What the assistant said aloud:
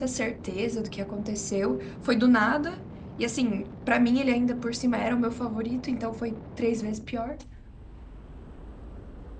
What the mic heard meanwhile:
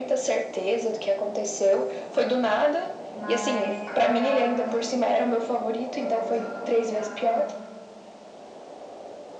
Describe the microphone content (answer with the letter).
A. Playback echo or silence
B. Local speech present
B